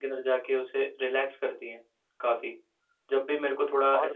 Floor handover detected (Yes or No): No